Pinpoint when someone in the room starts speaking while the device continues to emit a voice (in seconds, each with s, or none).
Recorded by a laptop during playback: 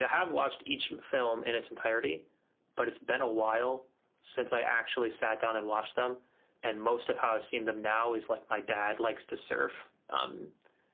none